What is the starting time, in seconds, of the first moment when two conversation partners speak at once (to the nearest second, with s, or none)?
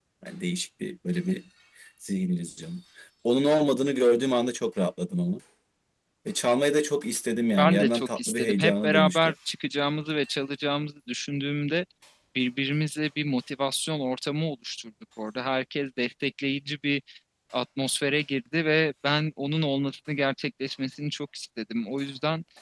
8 s